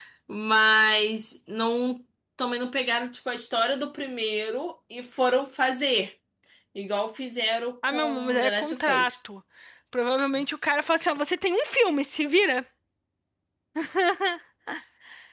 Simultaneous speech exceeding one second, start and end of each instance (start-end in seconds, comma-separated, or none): 7.9-9.2